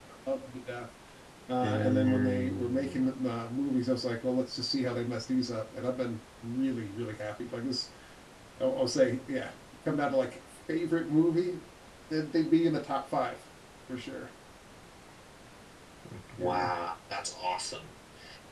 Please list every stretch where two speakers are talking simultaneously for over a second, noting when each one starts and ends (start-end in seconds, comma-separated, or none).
1.6-3.0